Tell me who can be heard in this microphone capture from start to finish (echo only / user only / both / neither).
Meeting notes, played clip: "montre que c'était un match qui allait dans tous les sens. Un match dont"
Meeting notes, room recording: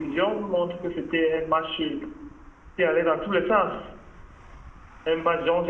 echo only